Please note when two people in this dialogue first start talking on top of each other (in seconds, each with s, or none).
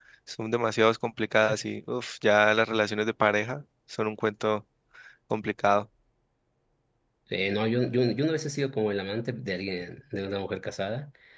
none